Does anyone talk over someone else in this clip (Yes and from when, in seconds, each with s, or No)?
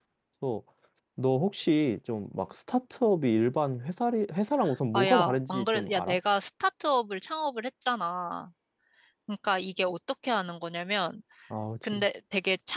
Yes, from 4.9 s